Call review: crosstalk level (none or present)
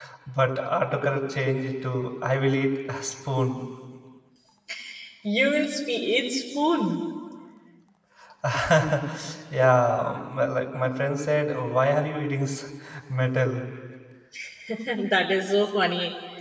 none